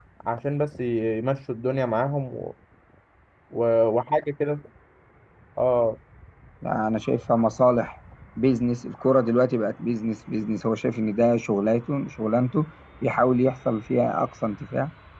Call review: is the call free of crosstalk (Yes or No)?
Yes